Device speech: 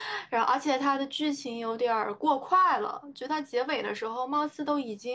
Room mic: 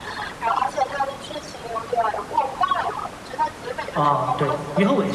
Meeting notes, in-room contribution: present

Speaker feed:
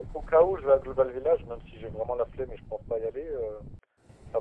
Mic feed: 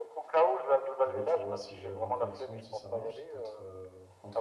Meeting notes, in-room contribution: present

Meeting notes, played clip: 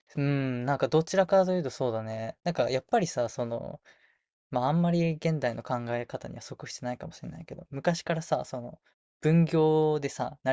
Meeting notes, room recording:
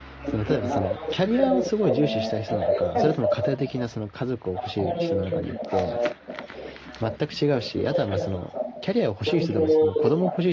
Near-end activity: present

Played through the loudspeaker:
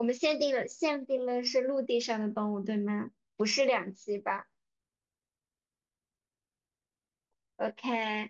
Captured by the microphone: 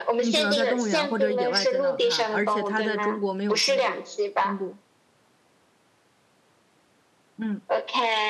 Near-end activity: present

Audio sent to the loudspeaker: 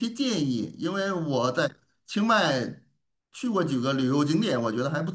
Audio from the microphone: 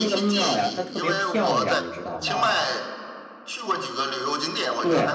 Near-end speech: present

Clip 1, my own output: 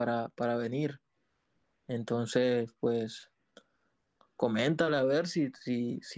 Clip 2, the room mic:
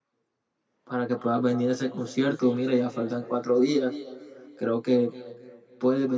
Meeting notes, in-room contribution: present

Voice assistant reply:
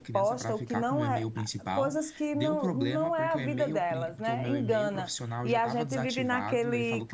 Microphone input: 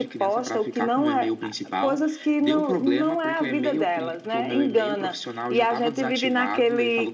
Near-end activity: none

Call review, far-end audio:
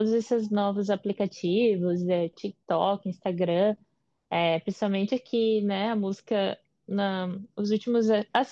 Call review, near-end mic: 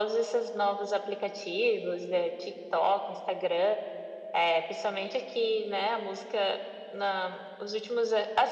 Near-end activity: none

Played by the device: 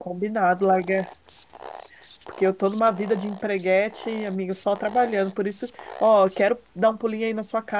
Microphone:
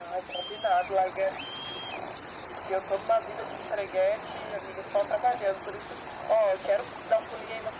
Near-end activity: none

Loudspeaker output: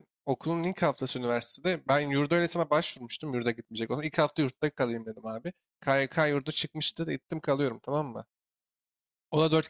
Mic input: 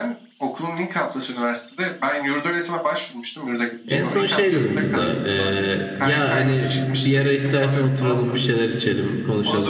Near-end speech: present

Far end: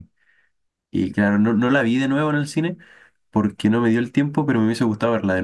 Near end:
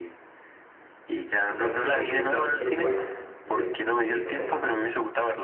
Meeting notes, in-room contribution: present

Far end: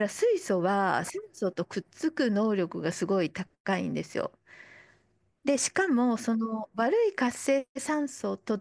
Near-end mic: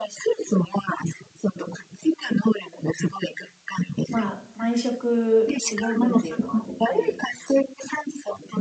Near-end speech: present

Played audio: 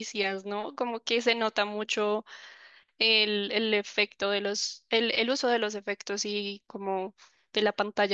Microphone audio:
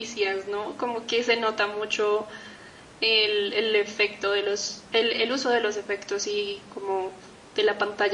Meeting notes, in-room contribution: none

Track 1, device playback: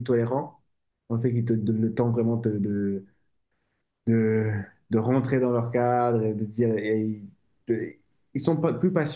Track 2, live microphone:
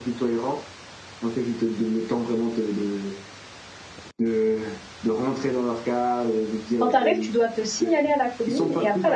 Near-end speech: present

